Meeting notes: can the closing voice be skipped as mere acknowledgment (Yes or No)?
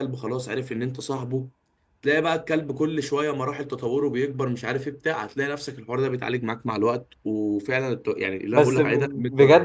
No